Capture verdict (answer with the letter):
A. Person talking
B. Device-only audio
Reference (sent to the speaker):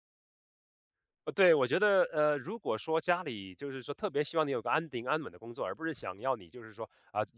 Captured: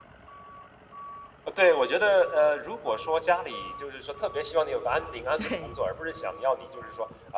A